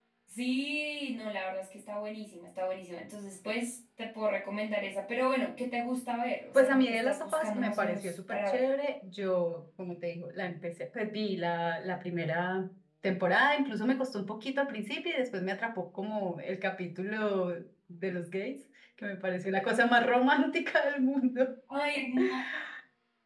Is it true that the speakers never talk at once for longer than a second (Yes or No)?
No